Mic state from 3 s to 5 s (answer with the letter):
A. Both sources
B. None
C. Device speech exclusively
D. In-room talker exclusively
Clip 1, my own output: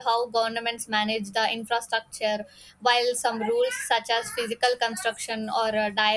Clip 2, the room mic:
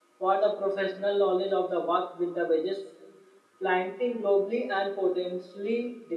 D